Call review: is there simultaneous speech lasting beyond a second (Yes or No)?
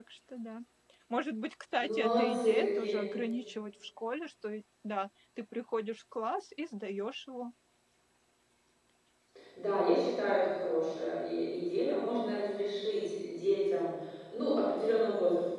Yes